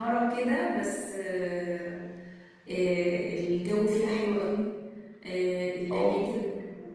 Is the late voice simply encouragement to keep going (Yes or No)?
Yes